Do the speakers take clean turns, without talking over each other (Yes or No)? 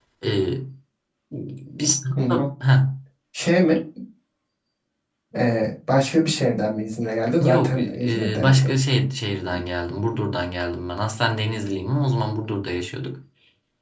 No